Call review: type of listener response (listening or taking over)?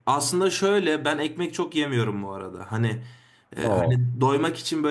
listening